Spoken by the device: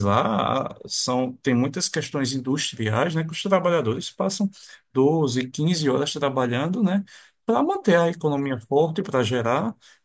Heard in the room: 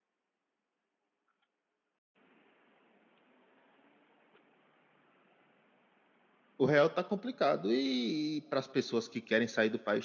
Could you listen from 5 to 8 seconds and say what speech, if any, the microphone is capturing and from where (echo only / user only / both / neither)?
user only